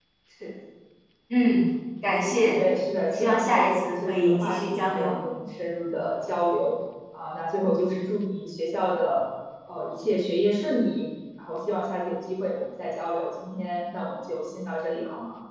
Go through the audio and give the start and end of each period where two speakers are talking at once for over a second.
3.1-5.2

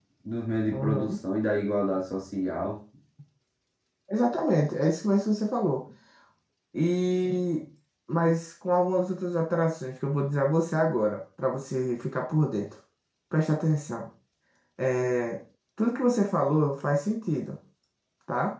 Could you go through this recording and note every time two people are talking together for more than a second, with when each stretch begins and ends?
none

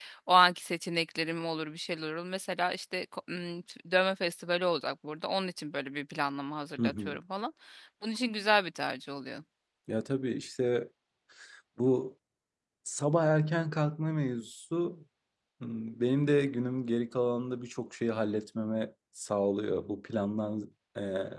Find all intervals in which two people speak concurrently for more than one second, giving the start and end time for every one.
none

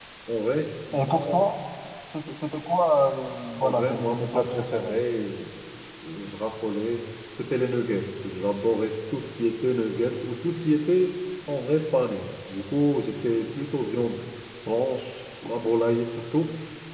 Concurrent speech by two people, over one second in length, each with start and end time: 3.6-5.0

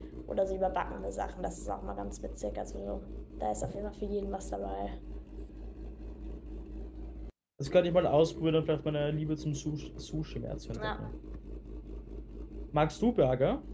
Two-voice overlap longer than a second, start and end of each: none

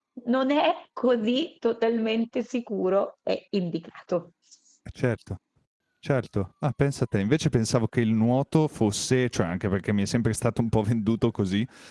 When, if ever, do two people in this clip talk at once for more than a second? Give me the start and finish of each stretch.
none

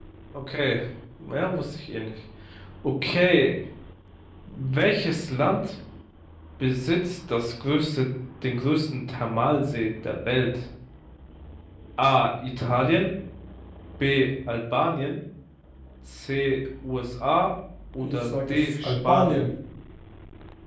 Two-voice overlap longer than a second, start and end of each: 18.0-19.4

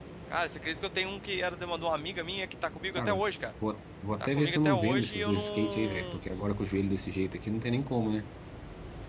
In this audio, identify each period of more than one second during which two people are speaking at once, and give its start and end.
4.2-6.2

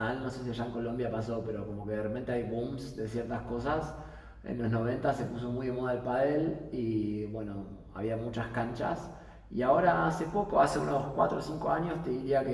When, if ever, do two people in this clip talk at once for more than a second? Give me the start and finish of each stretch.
none

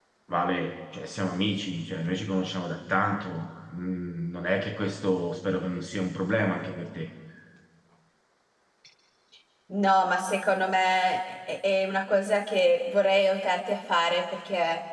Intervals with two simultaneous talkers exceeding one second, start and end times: none

